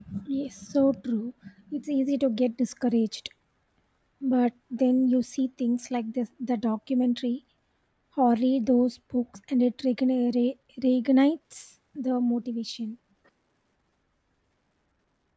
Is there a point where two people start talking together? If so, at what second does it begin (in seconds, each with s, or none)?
none